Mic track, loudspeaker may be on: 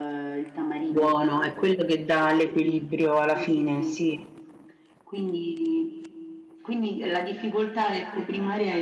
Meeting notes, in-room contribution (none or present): present